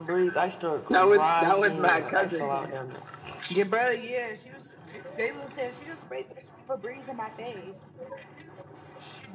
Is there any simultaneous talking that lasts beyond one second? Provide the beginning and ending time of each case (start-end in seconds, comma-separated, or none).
0.9-2.7